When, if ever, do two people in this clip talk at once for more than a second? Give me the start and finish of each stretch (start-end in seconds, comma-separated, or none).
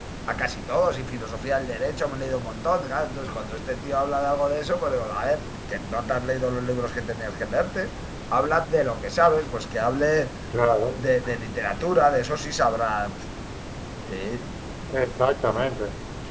none